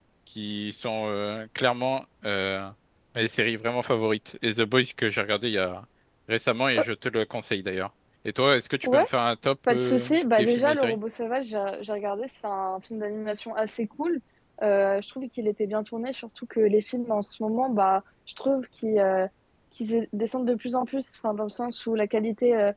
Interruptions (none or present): present